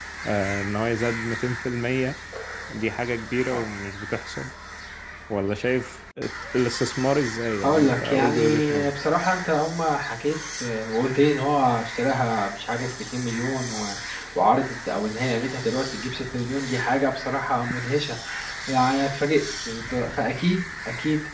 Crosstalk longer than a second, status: present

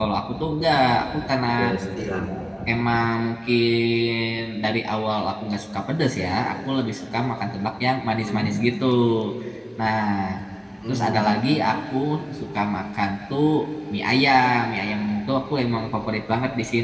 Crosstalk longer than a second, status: none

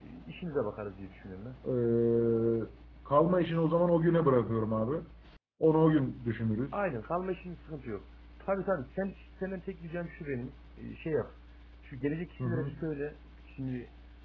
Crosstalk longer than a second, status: none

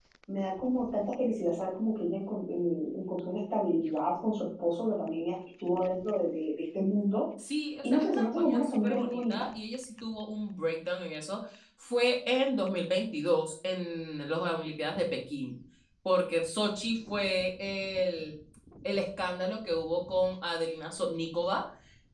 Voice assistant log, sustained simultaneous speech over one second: present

